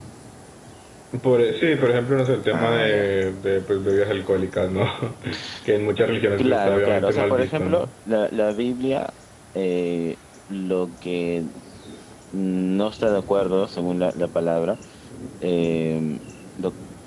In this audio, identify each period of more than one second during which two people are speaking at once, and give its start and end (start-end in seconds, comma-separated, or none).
6.4-7.8